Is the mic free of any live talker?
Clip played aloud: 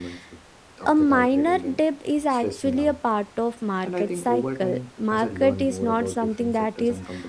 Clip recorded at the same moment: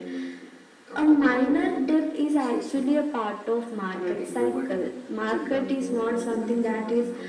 Yes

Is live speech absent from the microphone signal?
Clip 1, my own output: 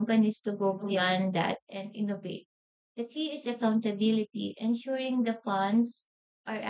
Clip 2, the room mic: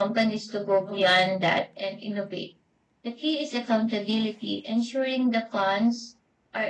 Yes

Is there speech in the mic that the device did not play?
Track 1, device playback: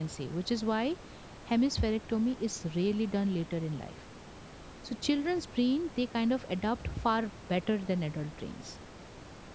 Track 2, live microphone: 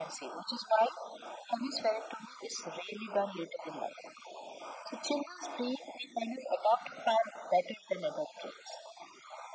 No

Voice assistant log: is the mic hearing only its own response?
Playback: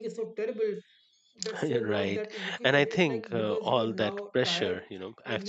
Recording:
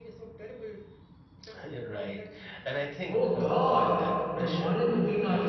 No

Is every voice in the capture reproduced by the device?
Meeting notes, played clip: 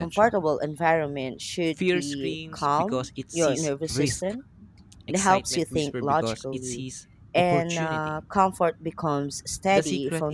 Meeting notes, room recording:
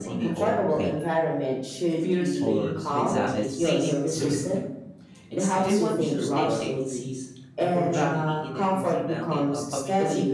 No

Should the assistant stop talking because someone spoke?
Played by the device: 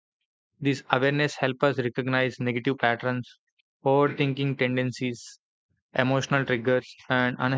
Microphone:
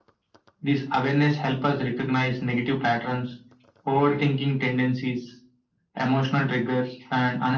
No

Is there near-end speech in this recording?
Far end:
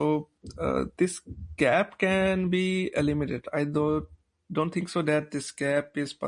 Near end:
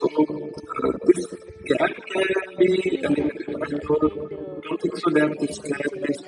Yes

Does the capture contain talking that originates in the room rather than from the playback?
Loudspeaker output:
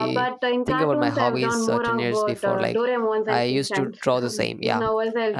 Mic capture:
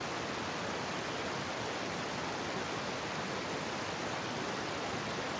No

